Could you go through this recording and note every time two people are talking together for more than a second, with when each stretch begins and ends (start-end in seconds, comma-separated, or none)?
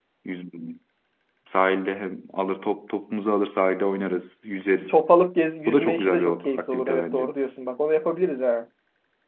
5.7-7.3